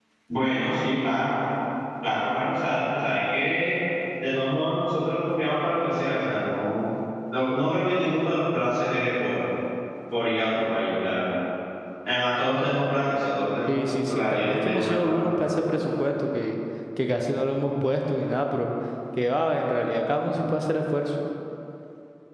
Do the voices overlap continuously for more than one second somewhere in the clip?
Yes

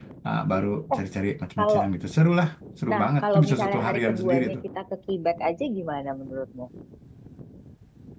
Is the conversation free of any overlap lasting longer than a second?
No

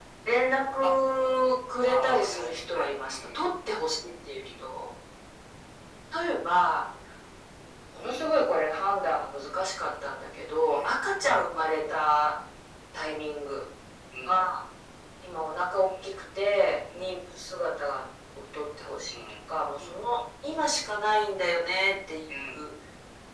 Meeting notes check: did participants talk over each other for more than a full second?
Yes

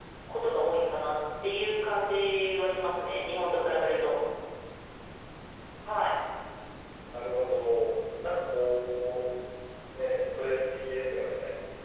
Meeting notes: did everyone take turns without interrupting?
Yes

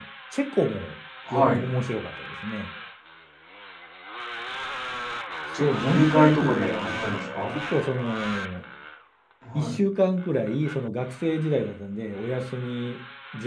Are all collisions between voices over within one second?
No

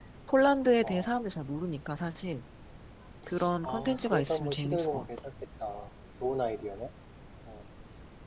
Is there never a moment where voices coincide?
No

